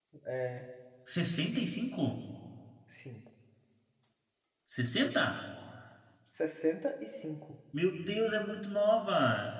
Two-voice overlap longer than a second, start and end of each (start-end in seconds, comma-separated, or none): none